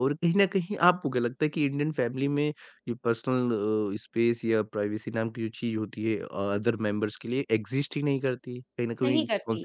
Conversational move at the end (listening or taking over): listening